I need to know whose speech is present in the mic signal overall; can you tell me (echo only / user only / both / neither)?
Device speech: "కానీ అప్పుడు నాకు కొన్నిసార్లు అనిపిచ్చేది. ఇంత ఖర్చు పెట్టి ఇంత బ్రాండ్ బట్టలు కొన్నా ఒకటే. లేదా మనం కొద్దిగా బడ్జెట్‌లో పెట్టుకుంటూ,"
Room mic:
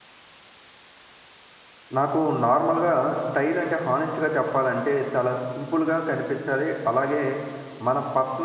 user only